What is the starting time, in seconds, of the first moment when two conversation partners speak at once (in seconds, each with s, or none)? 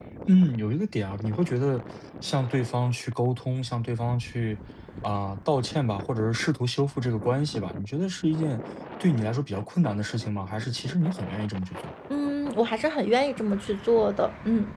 none